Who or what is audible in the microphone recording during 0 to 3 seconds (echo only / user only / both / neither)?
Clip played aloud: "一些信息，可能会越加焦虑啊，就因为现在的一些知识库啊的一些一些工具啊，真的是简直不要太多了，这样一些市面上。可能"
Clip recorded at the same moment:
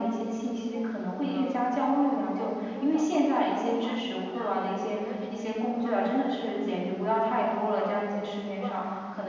both